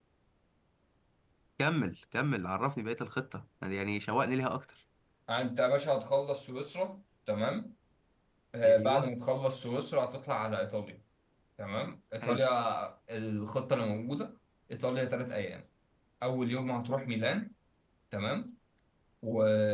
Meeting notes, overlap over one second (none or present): none